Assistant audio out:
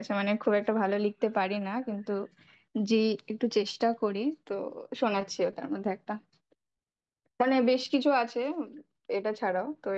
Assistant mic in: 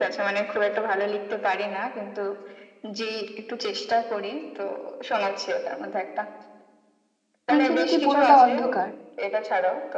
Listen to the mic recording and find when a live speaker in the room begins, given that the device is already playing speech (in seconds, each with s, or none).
7.5 s